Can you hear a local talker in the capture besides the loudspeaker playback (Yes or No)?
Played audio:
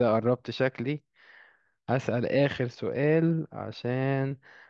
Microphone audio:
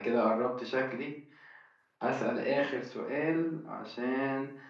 No